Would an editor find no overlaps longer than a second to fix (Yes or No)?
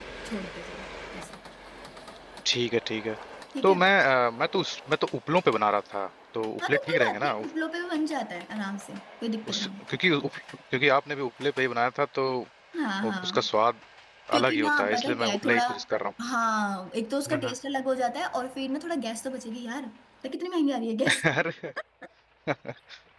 No